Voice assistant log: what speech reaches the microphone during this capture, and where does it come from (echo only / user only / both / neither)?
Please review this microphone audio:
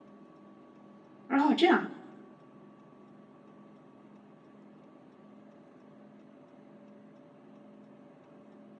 user only